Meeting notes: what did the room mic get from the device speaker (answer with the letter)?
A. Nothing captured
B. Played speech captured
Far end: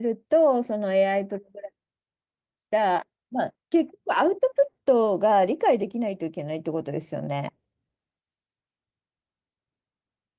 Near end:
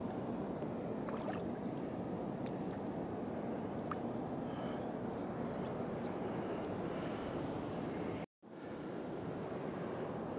A